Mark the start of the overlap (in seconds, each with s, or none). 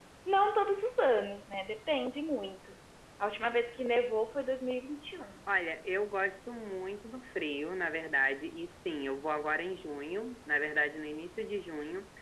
none